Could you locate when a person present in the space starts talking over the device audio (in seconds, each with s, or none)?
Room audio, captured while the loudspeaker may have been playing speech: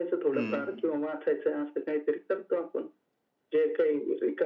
0.3 s